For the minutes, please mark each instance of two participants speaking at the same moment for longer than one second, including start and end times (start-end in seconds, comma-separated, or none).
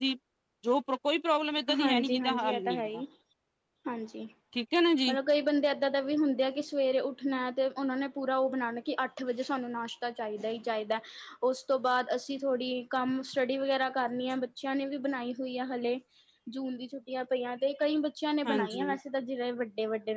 1.8-3.0